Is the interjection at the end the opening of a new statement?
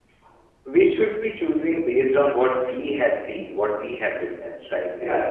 Yes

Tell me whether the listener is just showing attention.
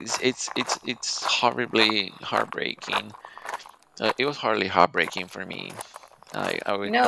No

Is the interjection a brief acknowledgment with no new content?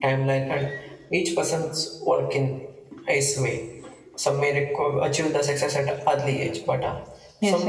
No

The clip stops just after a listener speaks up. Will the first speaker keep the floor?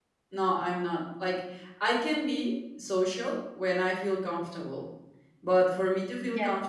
Yes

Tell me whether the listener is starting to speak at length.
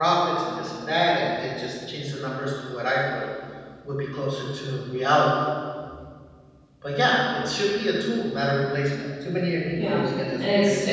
Yes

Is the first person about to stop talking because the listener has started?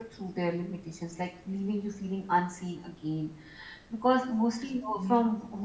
No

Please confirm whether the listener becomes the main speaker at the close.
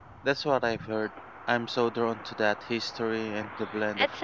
Yes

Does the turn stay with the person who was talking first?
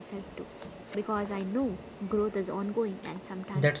No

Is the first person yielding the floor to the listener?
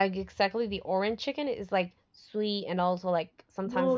Yes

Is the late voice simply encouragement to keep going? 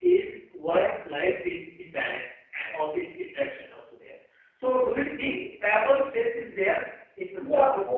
No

